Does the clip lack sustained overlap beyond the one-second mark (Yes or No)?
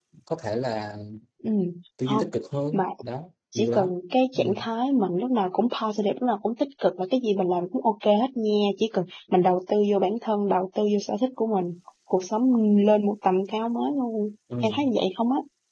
Yes